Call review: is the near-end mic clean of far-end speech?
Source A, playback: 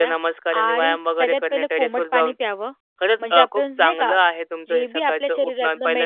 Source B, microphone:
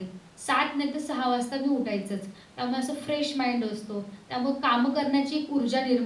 Yes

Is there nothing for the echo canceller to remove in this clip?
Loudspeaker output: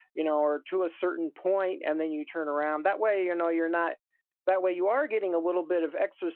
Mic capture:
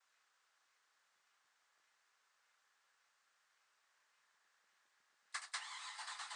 Yes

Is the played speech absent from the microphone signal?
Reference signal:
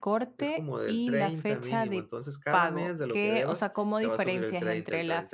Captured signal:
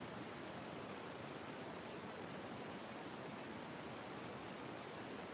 Yes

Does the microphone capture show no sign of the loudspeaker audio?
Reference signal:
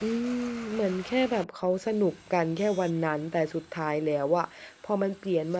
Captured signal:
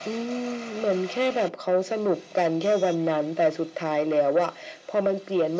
No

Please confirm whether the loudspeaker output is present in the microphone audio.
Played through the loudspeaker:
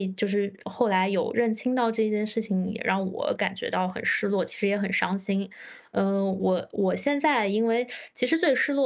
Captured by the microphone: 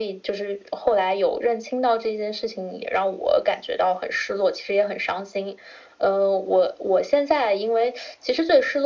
Yes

